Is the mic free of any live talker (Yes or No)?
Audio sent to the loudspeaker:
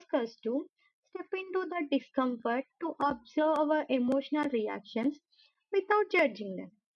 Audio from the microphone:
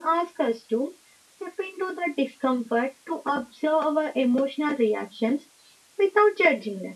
Yes